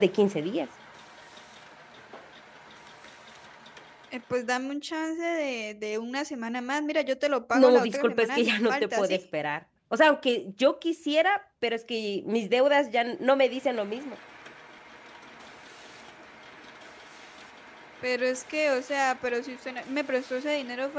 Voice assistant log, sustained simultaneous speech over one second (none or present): present